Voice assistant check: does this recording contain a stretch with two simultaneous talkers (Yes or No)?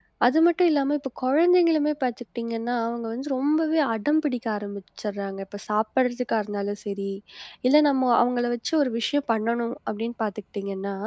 No